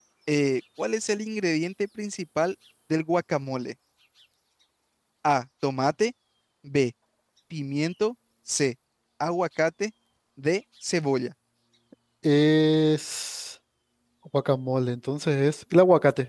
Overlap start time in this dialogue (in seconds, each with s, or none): none